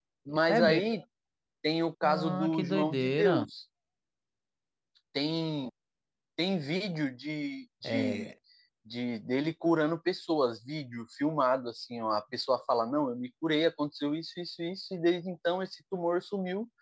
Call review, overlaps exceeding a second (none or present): present